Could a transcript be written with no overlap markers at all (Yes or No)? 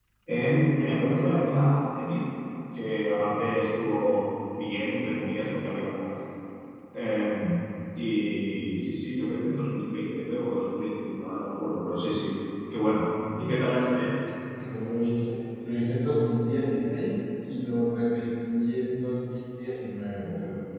Yes